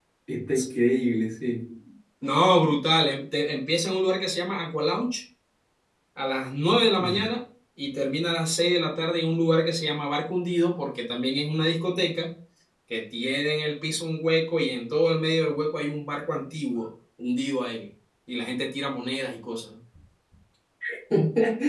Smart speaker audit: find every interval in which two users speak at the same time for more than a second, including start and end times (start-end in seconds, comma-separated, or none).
none